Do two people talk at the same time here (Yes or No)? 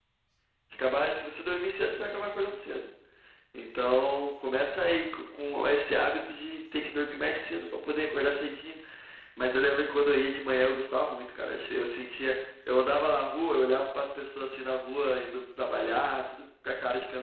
No